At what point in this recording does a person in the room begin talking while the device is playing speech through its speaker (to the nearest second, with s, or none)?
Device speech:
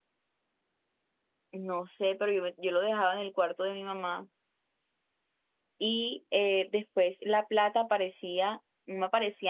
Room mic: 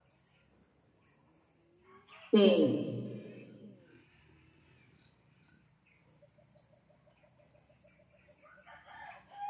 2 s